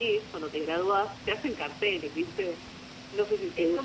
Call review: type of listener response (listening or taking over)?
taking over